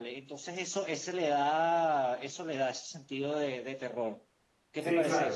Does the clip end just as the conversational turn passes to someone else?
Yes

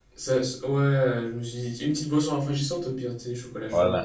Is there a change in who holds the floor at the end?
Yes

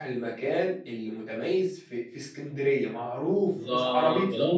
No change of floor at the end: No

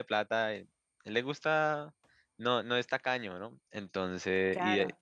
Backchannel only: Yes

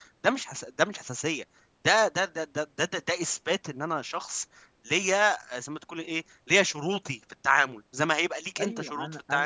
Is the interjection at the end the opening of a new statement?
Yes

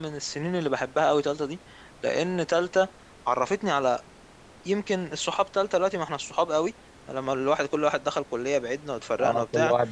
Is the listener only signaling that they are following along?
No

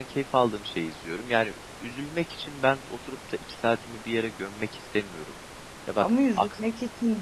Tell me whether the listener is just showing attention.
No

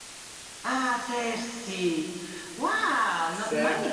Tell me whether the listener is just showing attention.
Yes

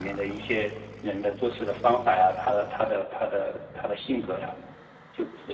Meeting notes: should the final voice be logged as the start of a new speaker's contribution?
Yes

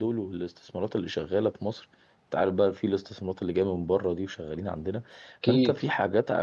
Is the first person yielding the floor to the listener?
No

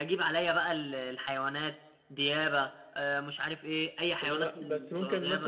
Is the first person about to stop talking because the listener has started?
Yes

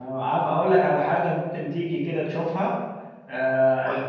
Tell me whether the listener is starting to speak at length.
No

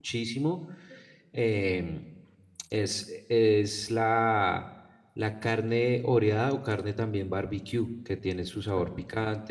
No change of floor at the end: Yes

